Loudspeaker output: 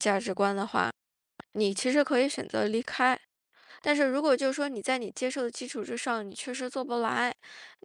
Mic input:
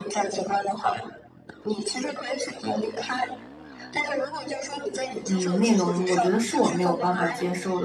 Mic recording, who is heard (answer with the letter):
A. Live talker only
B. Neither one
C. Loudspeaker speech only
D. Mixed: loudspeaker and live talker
D